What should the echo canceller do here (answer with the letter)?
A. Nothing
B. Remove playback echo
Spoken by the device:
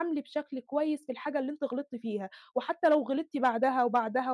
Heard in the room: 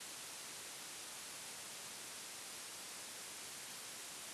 A